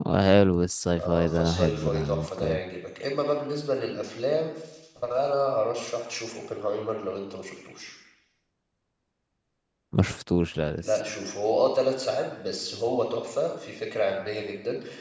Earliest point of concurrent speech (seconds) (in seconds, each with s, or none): 1.0 s